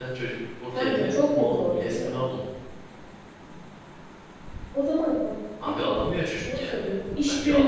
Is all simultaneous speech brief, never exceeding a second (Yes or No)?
No